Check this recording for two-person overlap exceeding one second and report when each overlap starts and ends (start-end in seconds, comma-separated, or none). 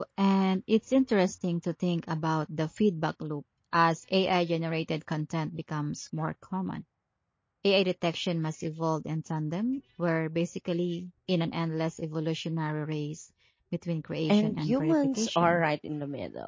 14.3-15.6